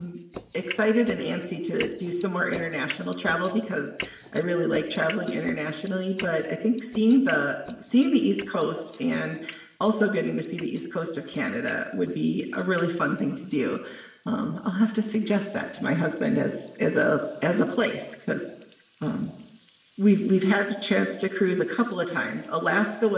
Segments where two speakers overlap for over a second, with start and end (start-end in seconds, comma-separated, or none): none